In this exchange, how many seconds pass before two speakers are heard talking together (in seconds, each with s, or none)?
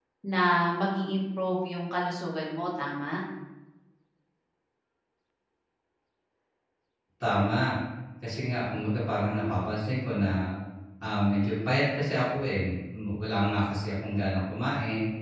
none